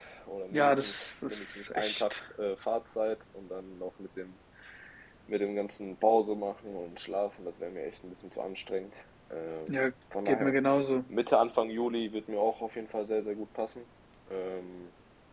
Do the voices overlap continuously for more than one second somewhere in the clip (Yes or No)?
Yes